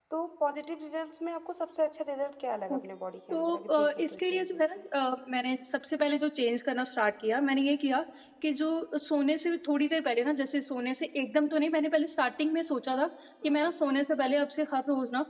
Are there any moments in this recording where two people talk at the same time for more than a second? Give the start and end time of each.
3.3-4.6

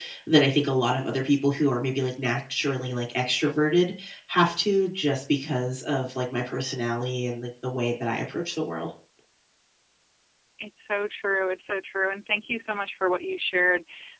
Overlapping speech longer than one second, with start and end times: none

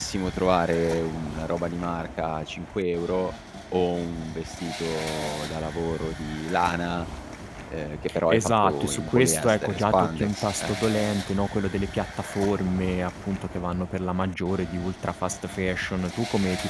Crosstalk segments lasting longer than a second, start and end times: 8.3-10.7

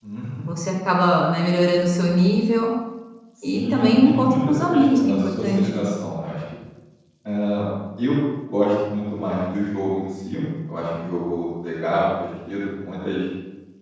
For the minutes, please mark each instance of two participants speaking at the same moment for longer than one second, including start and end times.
3.4-5.9

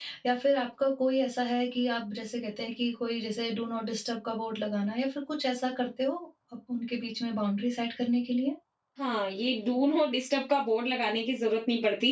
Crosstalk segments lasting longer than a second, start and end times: none

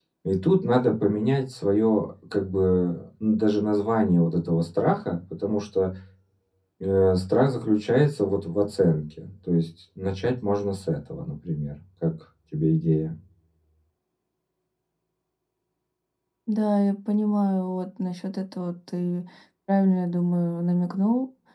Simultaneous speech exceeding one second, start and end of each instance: none

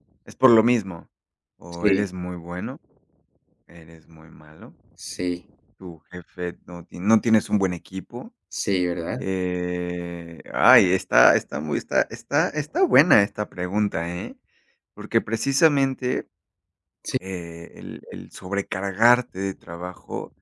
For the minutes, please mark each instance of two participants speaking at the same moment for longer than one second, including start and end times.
none

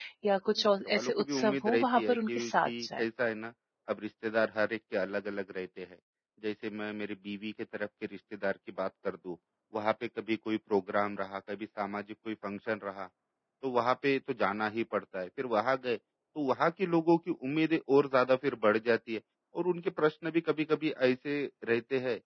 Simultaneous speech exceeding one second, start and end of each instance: 0.8-3.0

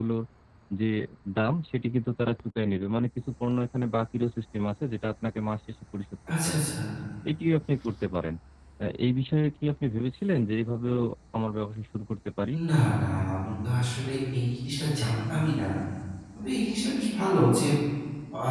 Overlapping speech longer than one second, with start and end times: none

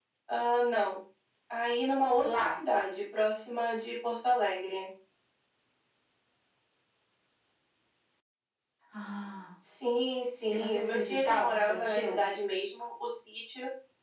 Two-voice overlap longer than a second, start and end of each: 10.5-12.2

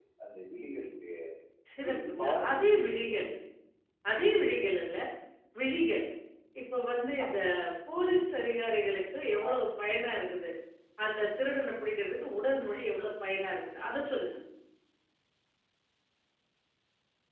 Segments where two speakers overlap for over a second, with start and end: 1.9-3.2

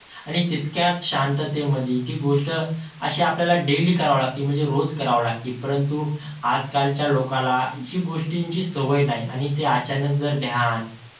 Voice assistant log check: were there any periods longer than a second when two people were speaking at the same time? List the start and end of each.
none

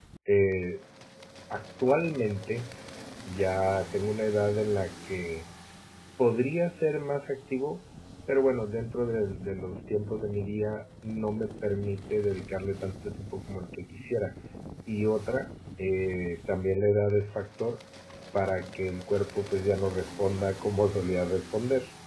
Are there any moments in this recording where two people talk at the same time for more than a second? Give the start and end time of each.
none

